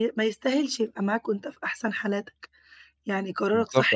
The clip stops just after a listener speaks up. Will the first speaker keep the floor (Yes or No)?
No